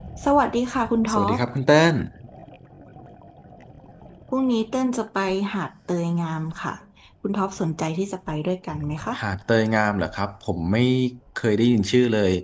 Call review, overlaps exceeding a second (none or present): none